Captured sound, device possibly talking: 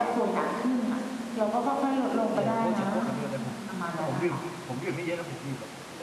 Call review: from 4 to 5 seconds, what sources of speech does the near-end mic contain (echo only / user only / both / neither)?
both